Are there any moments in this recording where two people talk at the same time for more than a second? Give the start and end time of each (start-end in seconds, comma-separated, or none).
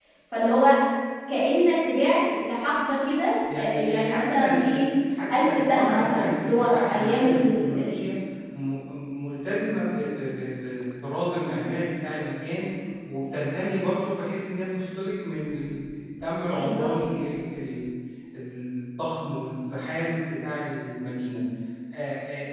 3.5-4.8, 5.4-7.9